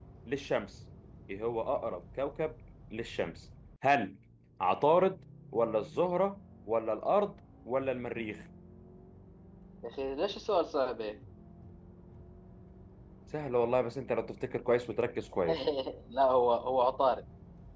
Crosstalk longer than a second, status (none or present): none